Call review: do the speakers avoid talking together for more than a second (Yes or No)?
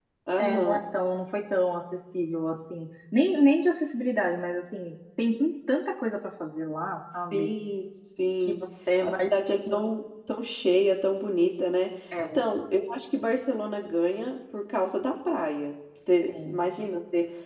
Yes